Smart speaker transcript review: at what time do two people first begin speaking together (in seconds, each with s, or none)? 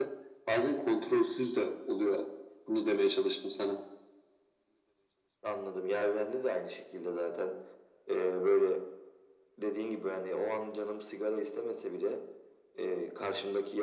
none